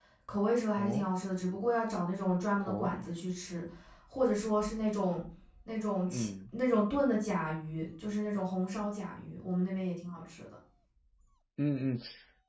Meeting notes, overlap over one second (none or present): none